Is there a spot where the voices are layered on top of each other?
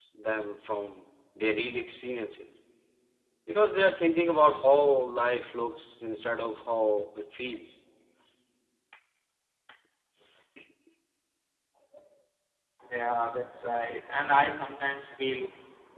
No

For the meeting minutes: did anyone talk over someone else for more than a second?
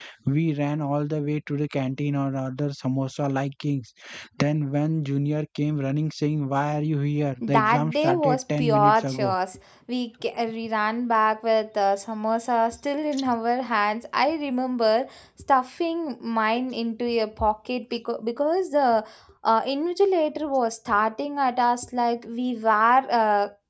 Yes, from 7.4 s

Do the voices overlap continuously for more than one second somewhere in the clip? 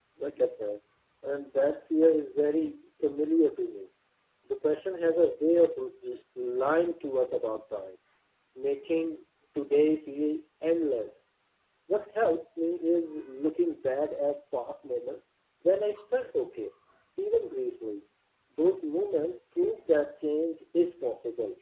No

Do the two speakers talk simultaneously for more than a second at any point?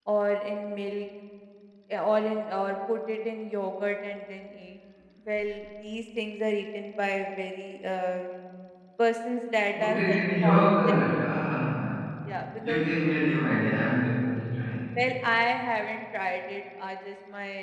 Yes, from 9.8 s

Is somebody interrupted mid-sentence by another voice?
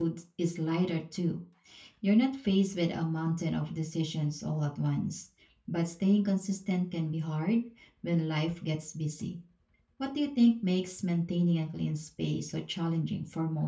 No

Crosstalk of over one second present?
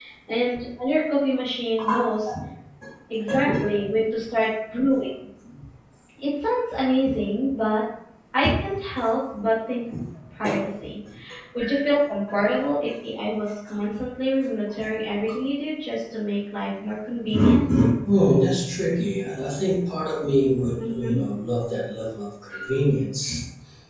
No

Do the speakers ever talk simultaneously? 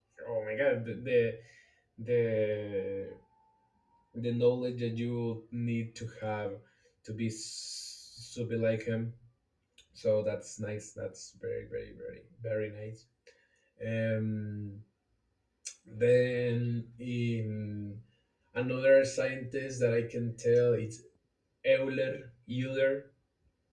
No

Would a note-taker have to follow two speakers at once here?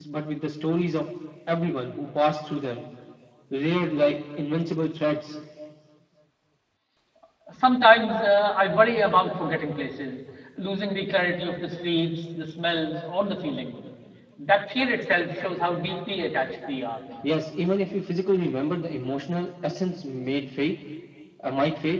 No

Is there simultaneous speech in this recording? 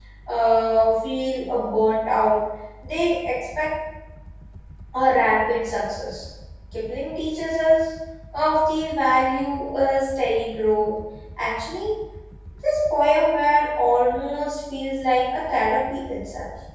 No

